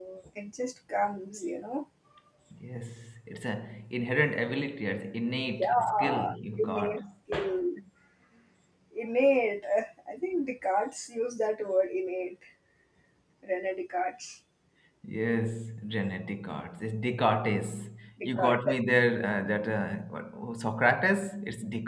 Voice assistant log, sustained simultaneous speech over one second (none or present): present